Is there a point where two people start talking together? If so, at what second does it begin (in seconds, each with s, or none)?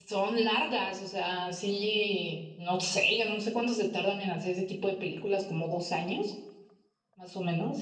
none